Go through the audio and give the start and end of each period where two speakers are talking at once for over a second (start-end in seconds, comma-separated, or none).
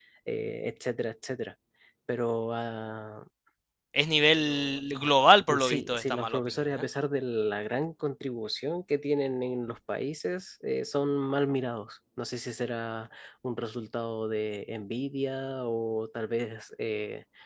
5.5-6.9